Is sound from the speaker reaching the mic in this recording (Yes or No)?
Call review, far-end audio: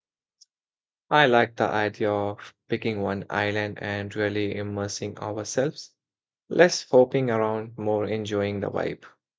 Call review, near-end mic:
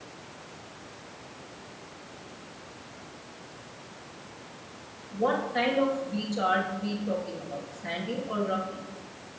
No